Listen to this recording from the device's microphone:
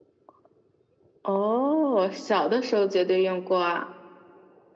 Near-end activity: none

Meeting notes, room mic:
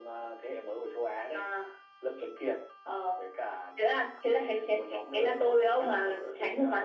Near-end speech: none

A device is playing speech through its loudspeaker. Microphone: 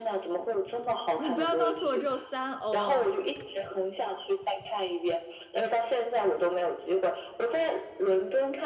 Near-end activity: present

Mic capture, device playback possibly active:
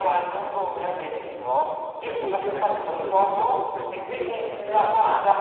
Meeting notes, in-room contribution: present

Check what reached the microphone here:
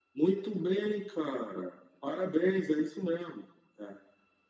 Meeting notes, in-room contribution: none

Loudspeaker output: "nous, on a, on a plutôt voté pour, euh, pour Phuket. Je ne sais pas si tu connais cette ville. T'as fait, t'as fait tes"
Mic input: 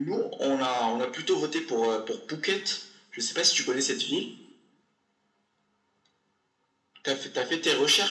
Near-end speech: none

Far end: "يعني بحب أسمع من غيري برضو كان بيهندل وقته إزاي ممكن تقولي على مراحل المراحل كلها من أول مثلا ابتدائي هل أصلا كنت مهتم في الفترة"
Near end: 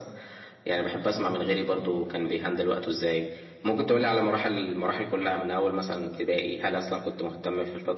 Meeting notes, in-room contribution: none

